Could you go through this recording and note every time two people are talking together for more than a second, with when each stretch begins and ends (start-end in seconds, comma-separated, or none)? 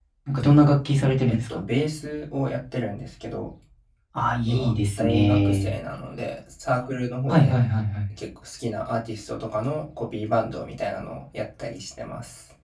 4.5-5.7